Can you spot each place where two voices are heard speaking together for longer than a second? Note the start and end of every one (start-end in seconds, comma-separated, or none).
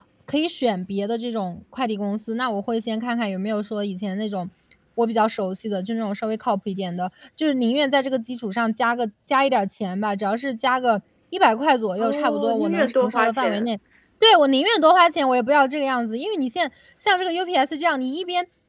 12.0-13.7